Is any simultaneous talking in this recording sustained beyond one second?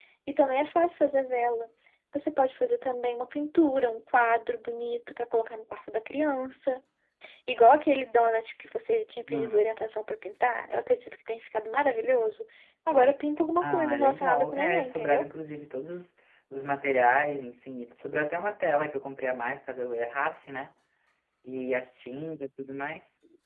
Yes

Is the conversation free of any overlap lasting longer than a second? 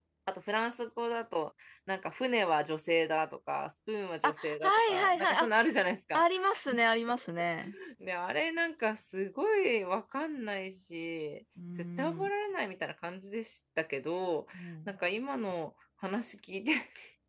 No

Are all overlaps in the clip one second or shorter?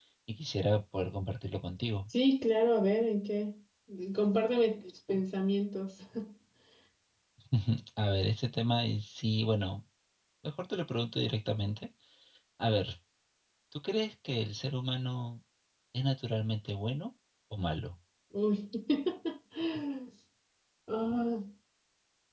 Yes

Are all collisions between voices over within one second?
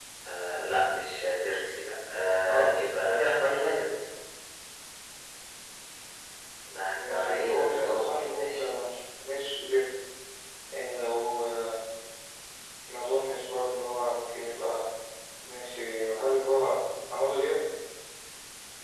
No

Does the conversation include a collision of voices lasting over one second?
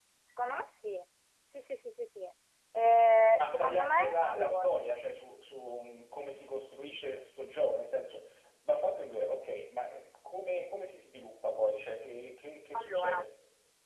Yes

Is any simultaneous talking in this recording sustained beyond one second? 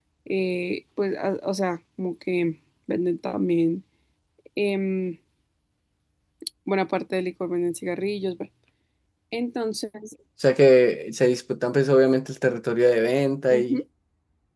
No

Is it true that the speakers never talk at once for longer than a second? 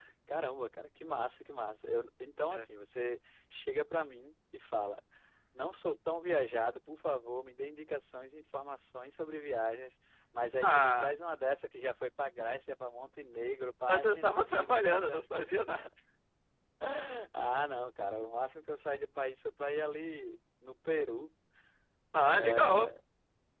No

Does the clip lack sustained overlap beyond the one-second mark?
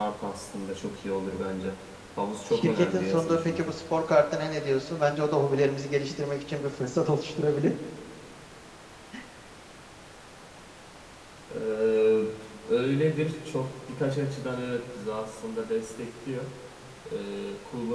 No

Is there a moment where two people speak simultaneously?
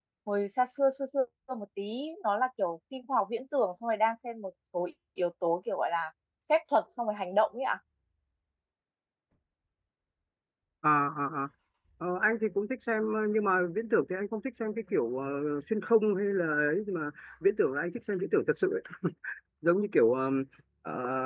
No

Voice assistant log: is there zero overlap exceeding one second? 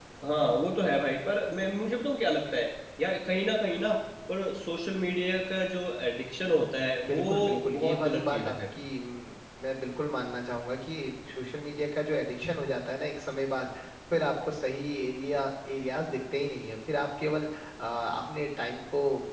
No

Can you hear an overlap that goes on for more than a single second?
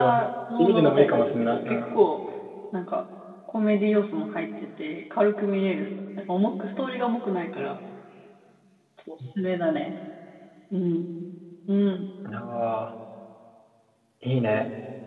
Yes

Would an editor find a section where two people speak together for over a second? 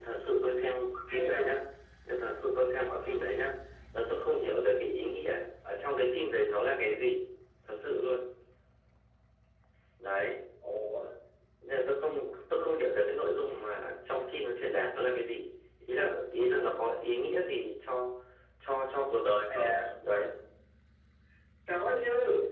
No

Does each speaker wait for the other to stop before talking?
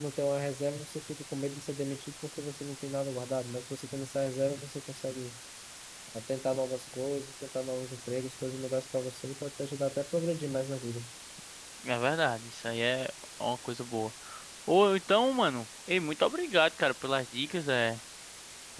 Yes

